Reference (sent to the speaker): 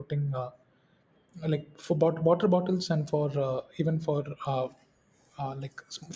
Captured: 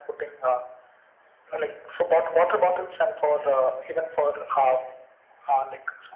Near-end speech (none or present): none